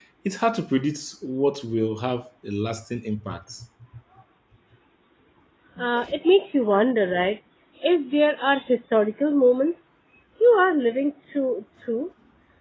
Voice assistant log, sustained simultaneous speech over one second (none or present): none